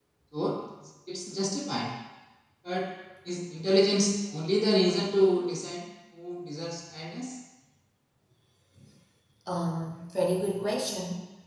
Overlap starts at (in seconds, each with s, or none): none